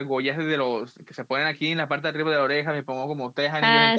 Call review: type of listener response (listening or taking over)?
listening